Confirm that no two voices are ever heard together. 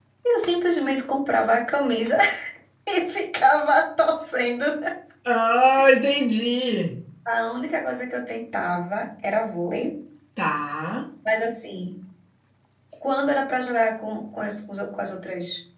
Yes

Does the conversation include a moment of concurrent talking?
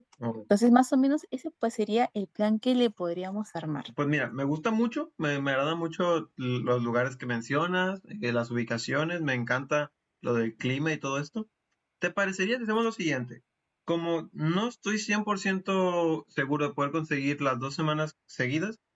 No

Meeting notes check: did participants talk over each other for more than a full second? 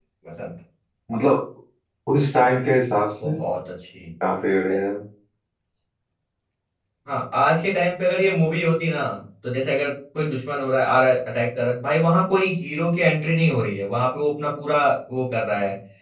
No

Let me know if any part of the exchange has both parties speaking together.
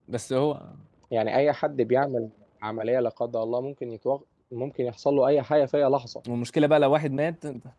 No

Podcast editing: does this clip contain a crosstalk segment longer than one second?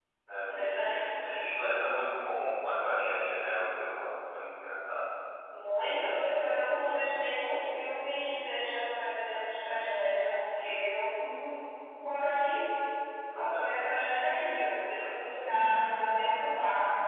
No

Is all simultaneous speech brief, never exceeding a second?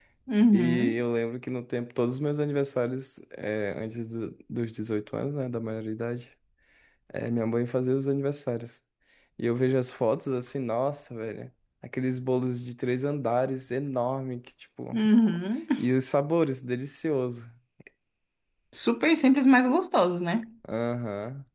Yes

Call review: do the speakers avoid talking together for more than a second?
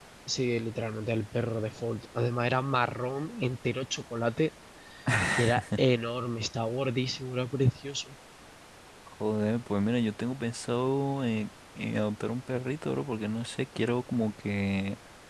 Yes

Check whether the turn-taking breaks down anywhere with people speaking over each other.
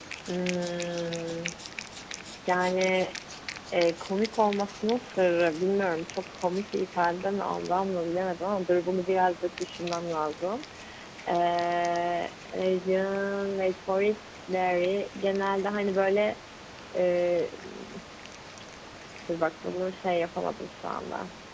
No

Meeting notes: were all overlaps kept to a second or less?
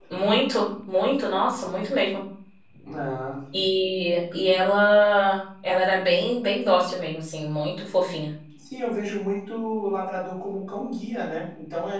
Yes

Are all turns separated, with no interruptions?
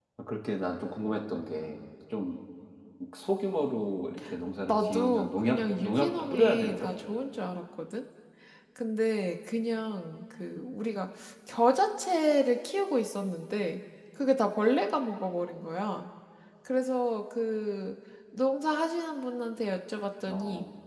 No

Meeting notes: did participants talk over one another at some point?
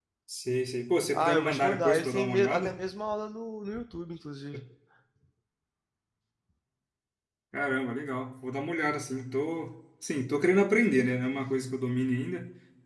Yes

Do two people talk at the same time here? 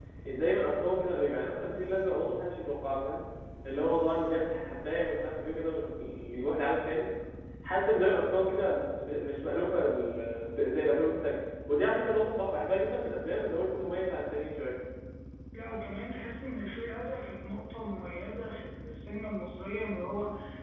No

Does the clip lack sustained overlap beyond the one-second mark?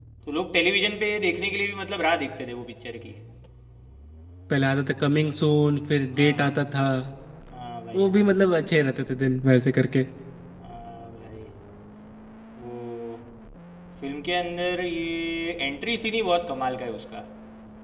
Yes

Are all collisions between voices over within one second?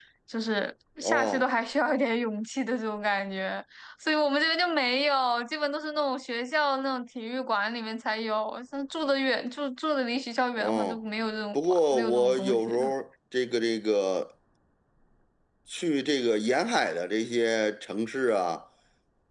No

